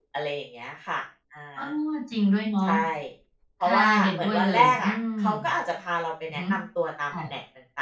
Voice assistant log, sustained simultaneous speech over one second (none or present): present